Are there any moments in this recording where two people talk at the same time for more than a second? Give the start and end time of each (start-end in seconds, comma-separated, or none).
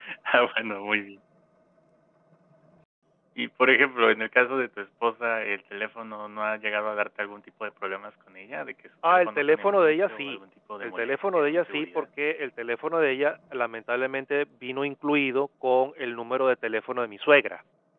9.1-10.4, 10.8-12.0